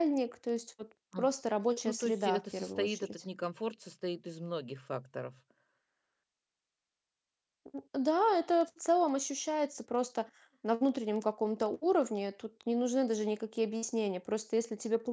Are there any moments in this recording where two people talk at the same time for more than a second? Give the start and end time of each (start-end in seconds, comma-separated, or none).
1.8-3.2